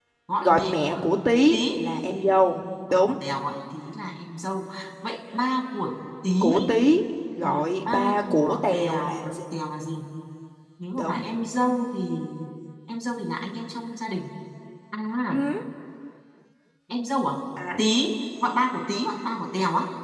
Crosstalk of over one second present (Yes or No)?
Yes